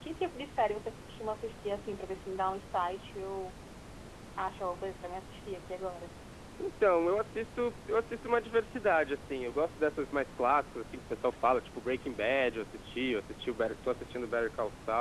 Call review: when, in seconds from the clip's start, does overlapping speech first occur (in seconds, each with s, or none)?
none